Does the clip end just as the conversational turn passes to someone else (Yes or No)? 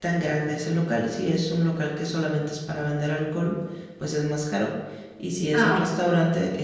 No